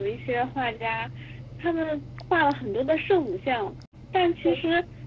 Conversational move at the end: listening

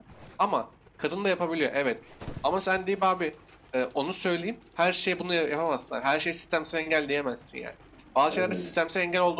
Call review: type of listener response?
listening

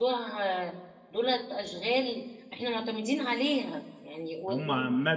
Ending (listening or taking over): taking over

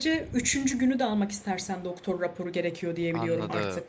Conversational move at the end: taking over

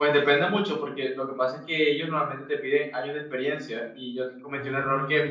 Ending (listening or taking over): listening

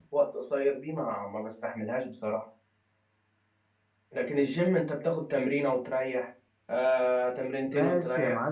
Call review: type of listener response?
taking over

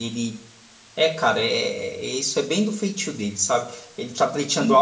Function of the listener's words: listening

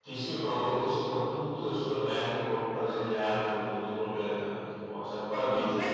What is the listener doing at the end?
taking over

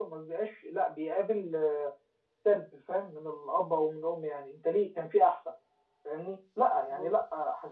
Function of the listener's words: listening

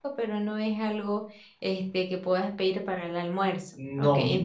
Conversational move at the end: taking over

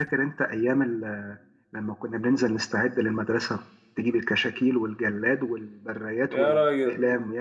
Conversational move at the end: taking over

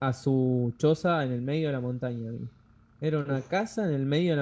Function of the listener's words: listening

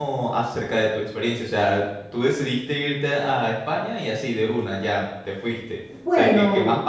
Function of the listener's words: listening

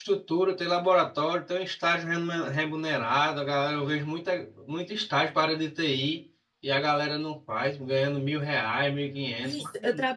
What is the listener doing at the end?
taking over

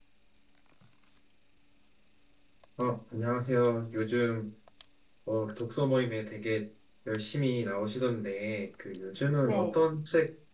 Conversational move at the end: listening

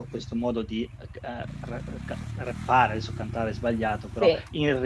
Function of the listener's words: listening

